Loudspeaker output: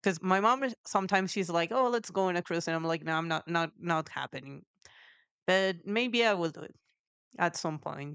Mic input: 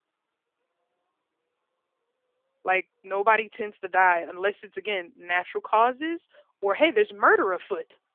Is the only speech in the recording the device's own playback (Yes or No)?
No